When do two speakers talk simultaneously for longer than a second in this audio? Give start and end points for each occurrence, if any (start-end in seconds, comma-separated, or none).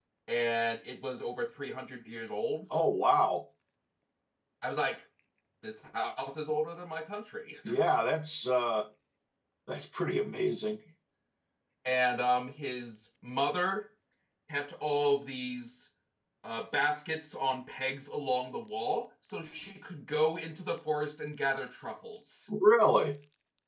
none